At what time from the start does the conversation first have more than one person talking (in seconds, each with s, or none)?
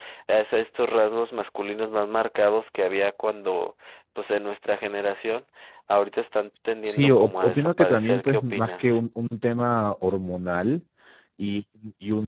6.8 s